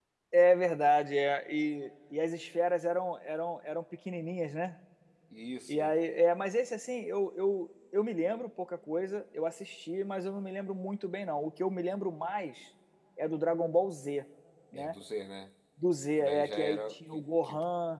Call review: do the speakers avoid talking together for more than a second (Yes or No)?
No